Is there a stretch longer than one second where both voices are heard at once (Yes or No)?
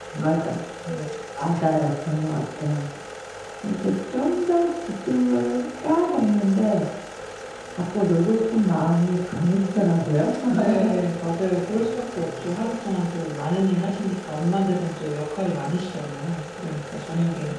No